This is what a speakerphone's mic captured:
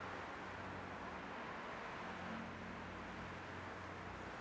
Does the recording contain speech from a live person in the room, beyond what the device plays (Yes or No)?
No